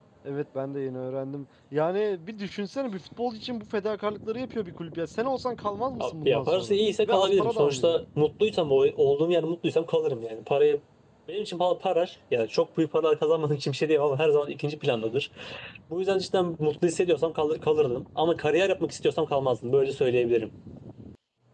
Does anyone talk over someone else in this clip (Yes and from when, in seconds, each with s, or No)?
Yes, from 6.0 s